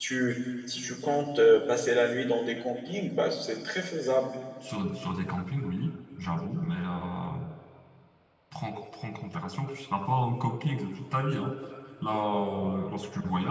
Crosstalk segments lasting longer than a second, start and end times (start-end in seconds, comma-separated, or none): none